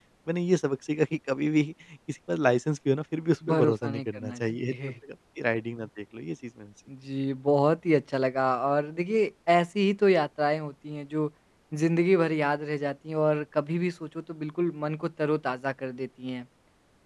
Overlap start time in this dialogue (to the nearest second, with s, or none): 3 s